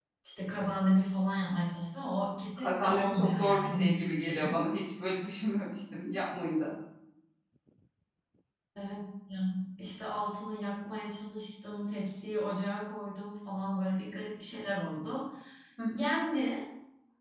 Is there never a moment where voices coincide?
No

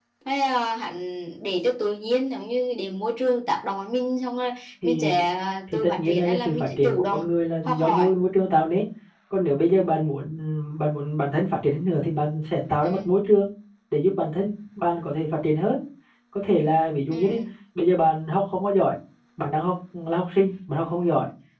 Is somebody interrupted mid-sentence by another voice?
Yes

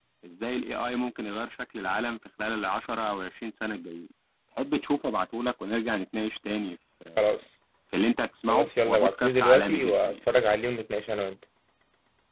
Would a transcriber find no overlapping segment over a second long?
No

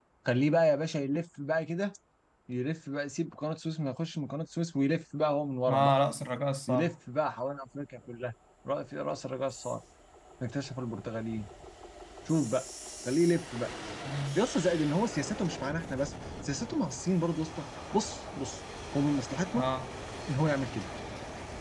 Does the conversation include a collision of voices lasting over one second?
No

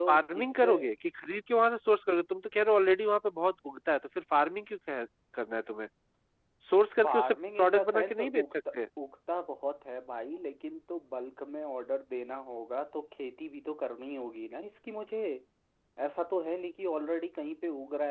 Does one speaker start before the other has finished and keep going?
Yes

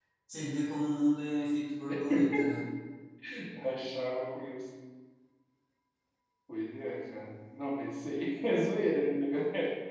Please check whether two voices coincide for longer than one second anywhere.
No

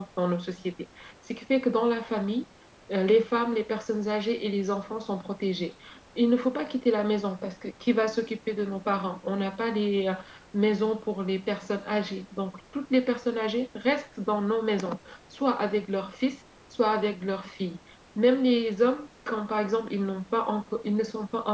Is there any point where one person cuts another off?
No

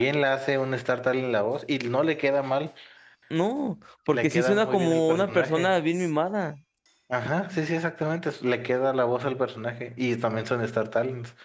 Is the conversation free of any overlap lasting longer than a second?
No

